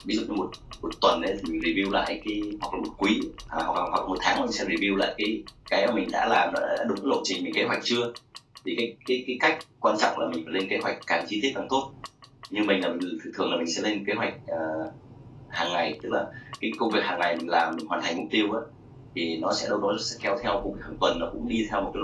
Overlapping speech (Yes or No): No